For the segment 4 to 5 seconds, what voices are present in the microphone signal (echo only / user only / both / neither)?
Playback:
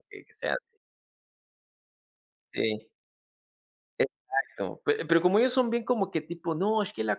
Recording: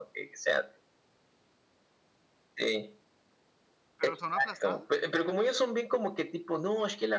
both